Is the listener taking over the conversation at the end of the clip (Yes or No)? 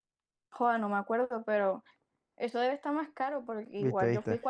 Yes